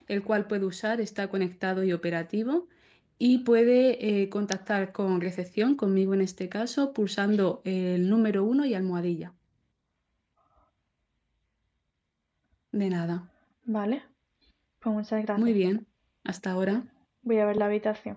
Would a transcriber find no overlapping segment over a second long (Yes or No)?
Yes